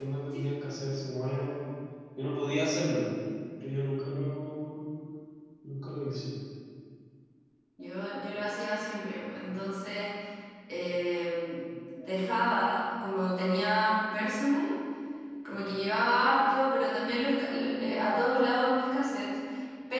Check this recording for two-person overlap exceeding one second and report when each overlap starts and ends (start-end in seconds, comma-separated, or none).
none